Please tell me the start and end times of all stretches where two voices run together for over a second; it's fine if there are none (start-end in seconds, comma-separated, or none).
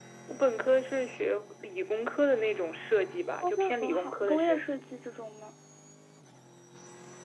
3.4-4.8